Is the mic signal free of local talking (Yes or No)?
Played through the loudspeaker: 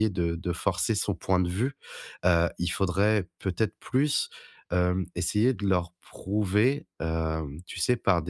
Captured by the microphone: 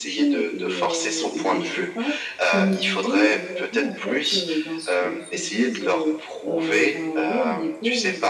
No